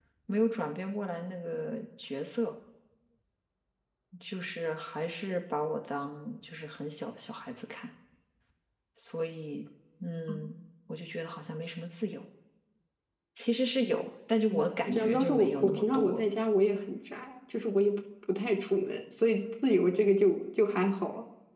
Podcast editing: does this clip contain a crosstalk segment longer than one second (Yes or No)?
Yes